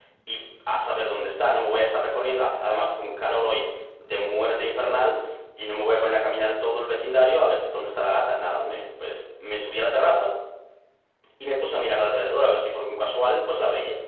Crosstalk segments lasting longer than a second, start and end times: none

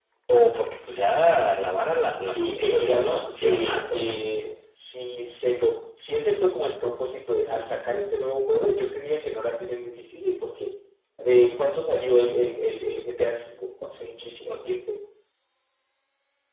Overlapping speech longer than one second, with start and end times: 2.2-4.2

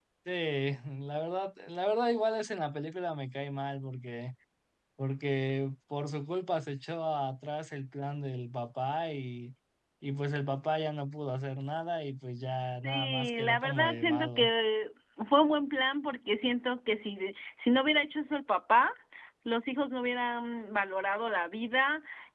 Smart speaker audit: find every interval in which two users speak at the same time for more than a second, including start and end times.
12.8-14.5

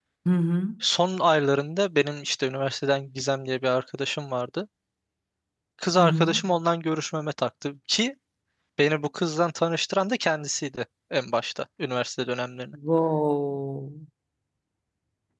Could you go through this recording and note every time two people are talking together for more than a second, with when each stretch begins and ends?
none

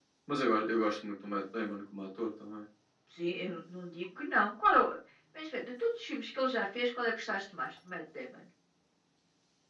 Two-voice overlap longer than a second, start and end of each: none

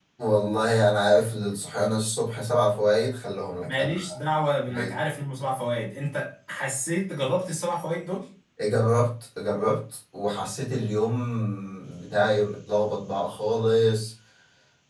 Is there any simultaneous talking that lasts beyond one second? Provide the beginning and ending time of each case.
none

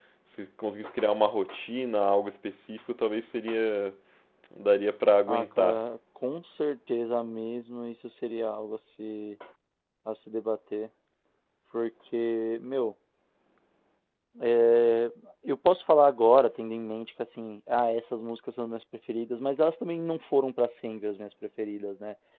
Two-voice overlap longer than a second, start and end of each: none

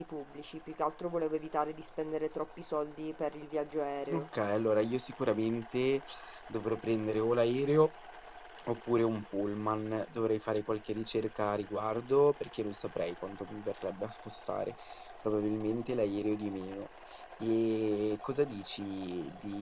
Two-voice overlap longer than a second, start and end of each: none

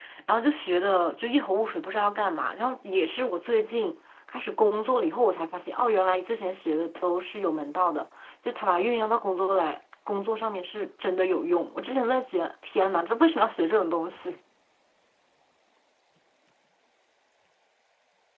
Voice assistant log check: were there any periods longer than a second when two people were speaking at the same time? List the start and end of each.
none

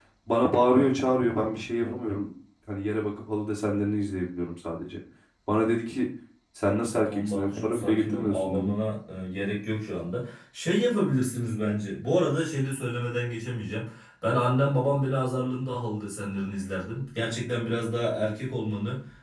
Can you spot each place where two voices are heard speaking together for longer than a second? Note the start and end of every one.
7.0-8.7

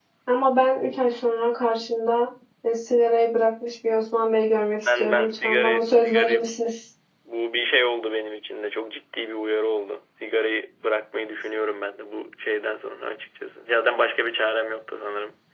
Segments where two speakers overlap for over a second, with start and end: 4.8-6.4

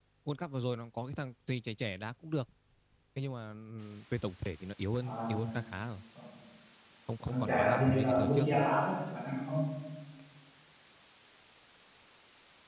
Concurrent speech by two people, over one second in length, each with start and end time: 7.3-8.7

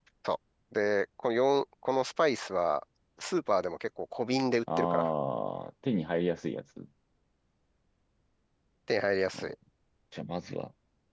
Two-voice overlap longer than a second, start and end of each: none

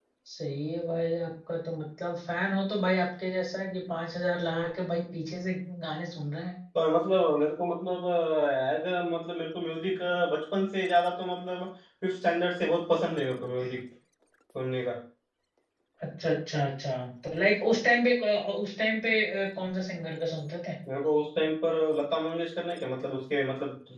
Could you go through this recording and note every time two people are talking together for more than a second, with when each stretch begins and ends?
none

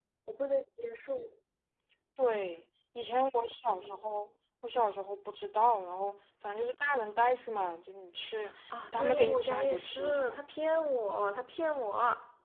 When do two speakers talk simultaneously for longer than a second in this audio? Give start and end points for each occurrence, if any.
8.9-10.4

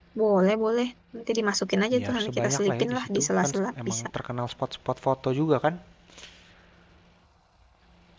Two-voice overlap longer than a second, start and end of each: 2.0-4.1

